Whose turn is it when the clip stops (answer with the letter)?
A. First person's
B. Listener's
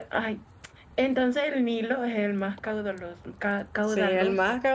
B